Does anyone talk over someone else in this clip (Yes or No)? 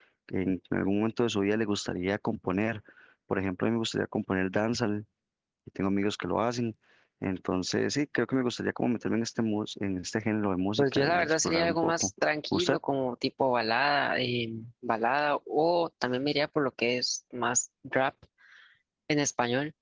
Yes